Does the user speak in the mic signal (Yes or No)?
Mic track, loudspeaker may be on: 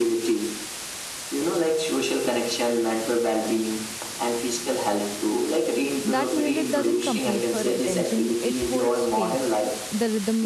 Yes